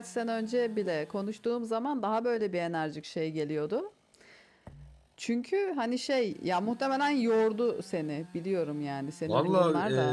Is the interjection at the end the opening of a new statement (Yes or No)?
Yes